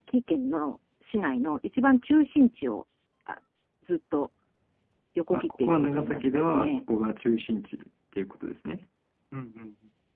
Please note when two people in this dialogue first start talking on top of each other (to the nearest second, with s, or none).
5 s